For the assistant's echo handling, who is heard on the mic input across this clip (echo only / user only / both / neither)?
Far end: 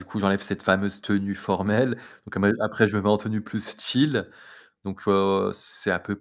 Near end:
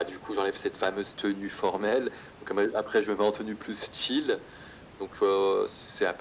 echo only